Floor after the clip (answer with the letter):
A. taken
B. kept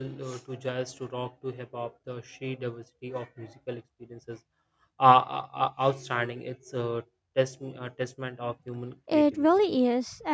A